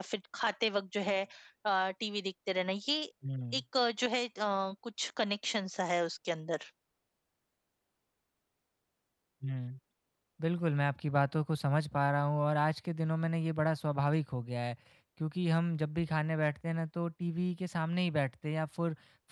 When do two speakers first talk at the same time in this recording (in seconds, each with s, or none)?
none